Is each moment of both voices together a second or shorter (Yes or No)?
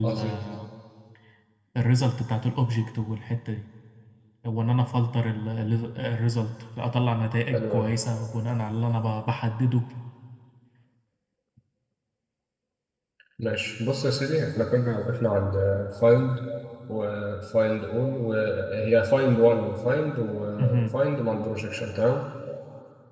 Yes